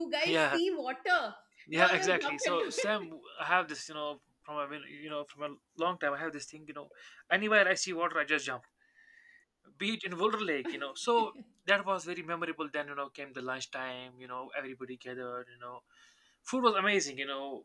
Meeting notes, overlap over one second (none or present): present